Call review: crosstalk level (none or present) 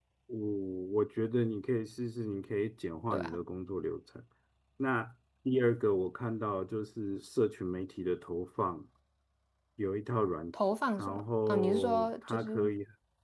present